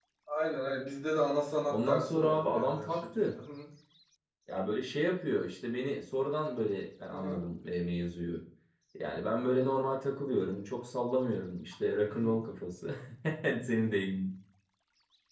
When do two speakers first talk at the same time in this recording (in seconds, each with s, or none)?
1.7 s